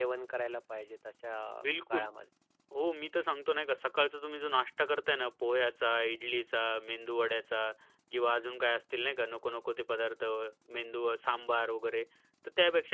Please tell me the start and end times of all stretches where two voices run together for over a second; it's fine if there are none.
none

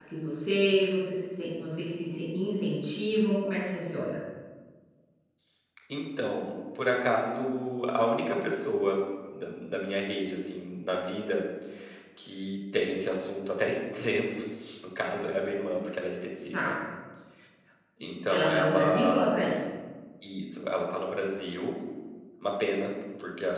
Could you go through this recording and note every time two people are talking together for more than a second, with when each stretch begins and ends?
18.3-19.5

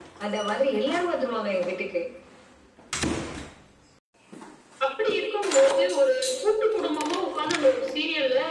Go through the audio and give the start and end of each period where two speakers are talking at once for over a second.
none

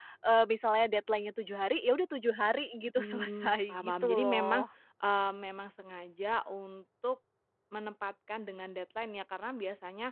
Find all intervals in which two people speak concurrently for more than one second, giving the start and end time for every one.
3.0-4.7

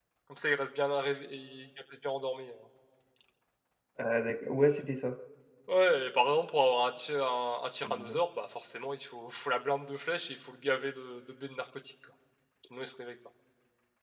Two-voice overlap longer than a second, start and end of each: none

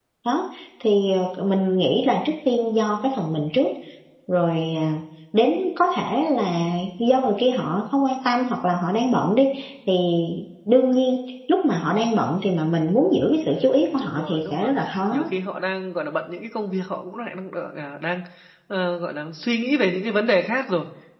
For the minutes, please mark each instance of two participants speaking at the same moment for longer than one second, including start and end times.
13.5-14.7

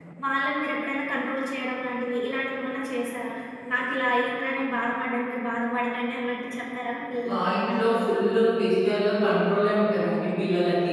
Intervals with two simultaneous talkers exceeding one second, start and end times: none

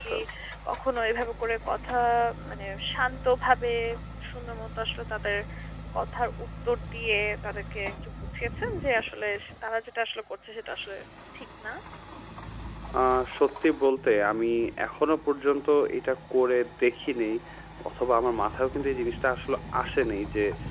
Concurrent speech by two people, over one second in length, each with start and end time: none

